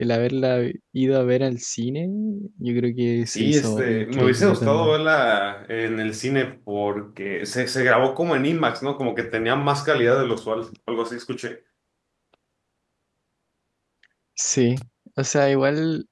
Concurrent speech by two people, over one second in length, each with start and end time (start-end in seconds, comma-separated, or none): 3.3-5.0